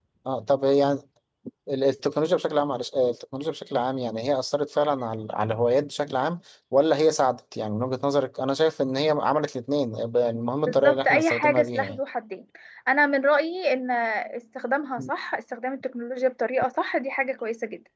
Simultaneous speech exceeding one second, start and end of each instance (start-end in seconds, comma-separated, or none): 10.7-12.0